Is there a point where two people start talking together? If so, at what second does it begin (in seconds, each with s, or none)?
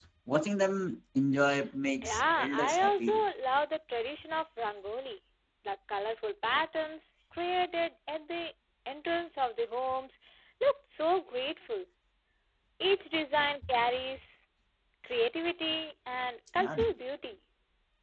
2.0 s